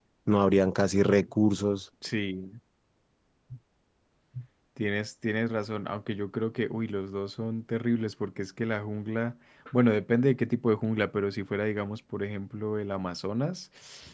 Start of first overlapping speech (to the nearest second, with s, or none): none